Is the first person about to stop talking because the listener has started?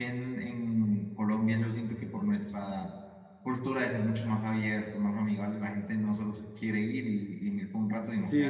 Yes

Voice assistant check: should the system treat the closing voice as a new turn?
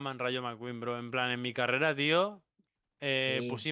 No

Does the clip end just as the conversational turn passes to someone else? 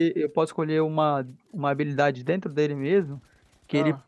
No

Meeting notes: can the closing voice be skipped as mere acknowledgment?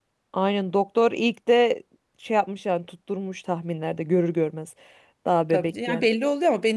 No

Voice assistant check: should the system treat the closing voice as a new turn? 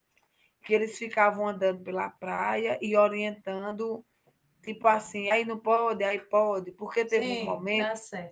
Yes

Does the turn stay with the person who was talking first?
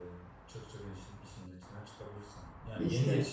Yes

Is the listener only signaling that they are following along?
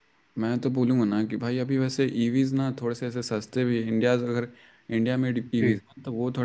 Yes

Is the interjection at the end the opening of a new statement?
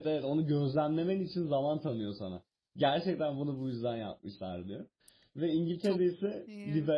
No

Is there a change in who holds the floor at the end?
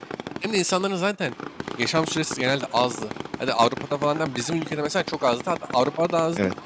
No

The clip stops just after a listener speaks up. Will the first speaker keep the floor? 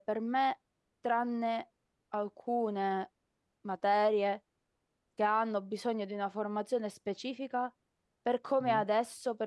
Yes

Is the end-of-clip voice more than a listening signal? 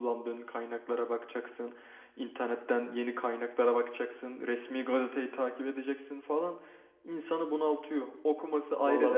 No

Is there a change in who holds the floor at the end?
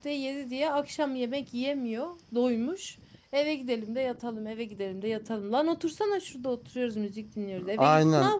Yes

